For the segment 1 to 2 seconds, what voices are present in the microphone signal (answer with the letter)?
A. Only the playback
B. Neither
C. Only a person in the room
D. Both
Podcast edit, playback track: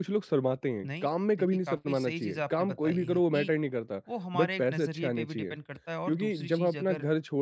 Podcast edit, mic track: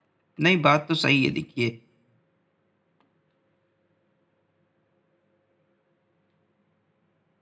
C